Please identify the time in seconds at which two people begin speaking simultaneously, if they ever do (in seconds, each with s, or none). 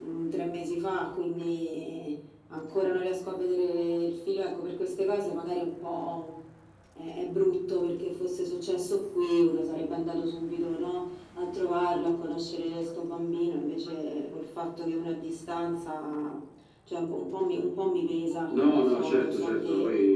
18.5 s